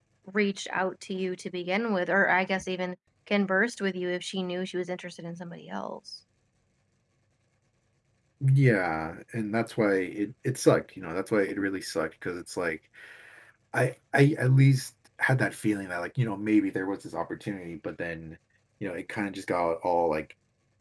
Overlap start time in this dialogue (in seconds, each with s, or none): none